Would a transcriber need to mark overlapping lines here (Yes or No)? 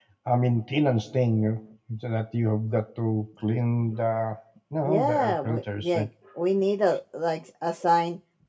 Yes